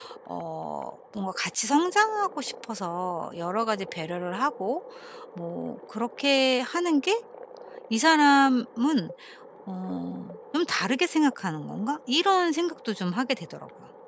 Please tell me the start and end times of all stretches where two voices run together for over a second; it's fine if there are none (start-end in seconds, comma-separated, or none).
none